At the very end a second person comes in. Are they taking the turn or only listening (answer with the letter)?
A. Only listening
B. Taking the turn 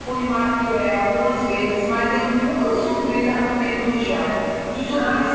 B